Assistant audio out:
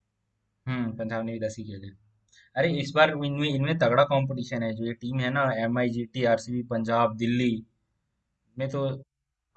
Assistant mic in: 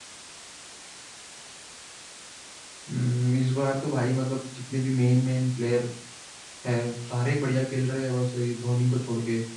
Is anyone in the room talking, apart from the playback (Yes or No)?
Yes